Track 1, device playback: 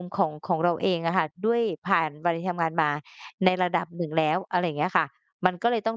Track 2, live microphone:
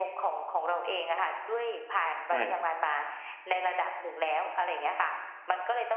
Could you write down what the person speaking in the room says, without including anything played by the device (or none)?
ใช่ครับ